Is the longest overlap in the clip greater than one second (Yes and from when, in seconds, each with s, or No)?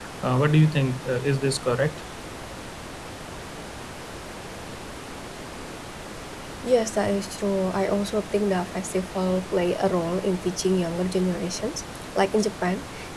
No